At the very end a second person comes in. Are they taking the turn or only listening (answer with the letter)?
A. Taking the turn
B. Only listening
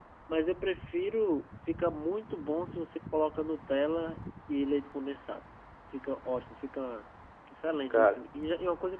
B